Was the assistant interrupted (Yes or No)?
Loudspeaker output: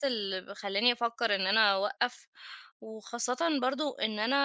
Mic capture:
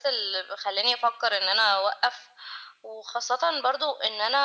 No